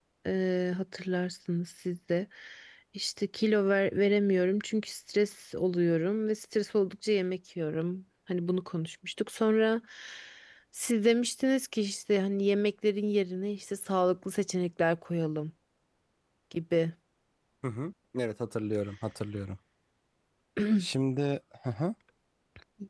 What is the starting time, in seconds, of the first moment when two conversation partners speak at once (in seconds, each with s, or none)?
none